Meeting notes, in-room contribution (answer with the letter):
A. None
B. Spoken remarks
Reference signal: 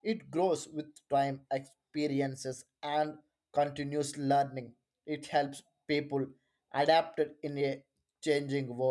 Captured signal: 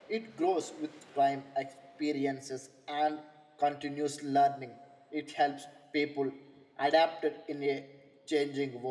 A